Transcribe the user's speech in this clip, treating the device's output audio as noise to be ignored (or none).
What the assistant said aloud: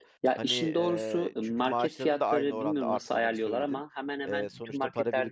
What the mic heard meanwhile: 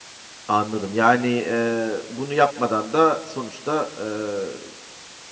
Anladım. Yani, eee, bunu yapmadan da sonuçta, eee,